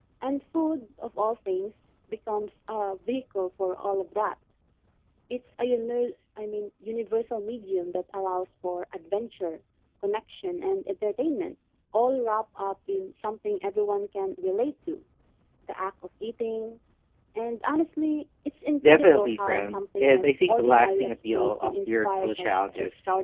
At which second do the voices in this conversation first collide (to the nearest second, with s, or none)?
19 s